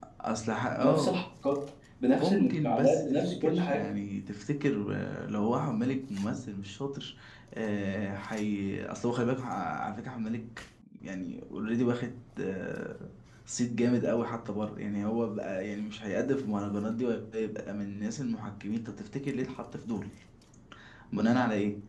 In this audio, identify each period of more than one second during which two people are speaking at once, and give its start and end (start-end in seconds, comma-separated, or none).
2.2-3.9